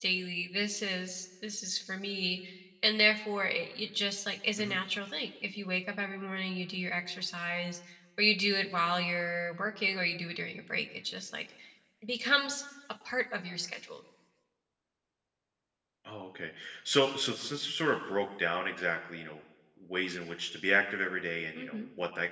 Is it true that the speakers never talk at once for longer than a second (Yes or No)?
Yes